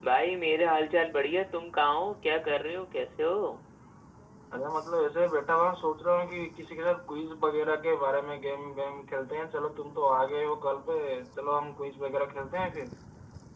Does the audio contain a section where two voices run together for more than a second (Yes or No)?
No